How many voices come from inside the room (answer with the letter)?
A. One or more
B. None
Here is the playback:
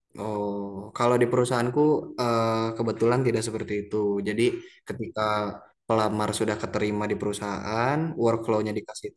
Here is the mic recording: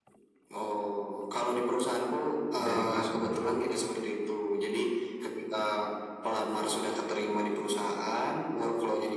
A